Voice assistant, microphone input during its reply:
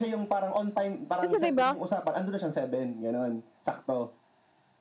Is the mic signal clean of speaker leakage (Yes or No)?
No